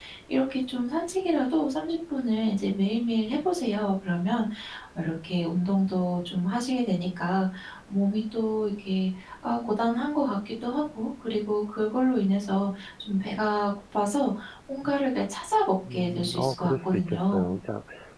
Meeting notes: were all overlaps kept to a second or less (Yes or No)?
No